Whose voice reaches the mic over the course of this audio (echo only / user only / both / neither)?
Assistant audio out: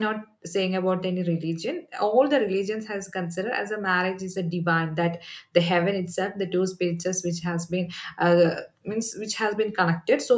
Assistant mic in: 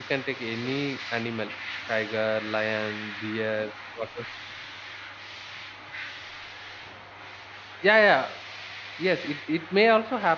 user only